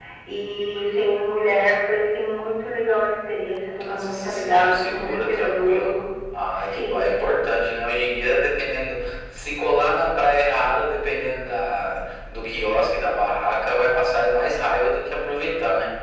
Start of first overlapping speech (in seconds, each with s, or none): 3.8 s